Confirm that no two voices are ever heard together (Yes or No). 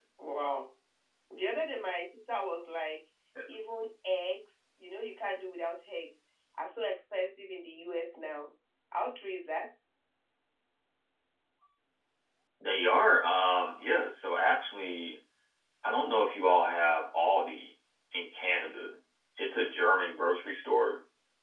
Yes